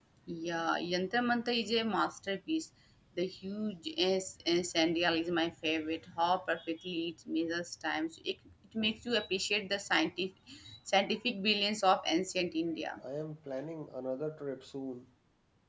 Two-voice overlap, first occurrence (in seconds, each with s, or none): none